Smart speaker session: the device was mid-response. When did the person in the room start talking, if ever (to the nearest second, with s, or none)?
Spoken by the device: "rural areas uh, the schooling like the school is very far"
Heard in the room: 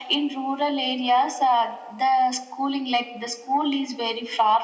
none